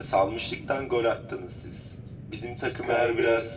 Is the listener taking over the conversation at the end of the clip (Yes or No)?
No